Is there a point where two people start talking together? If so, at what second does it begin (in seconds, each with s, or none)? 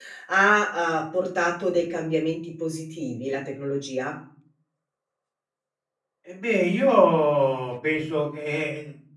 none